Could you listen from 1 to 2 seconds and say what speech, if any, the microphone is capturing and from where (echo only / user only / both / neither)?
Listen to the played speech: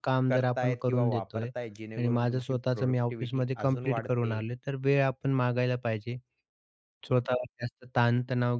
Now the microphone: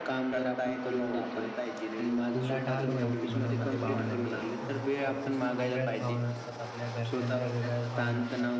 echo only